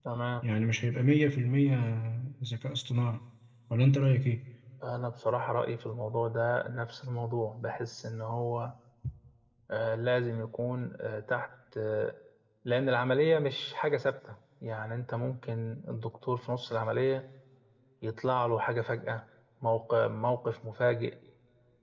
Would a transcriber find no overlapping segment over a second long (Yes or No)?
Yes